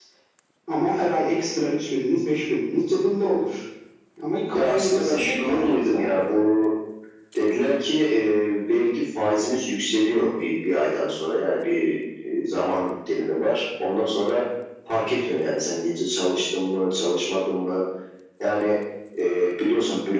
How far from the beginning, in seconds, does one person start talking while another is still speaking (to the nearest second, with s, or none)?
5 s